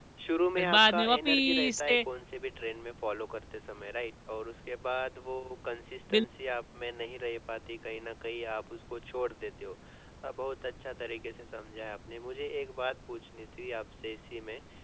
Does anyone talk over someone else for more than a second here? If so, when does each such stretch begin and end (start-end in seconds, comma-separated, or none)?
0.6-2.0